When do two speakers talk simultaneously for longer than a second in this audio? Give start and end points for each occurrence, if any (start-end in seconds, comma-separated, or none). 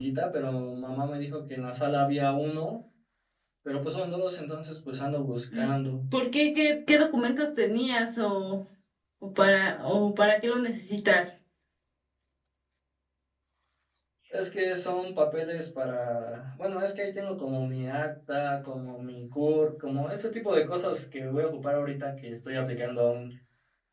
none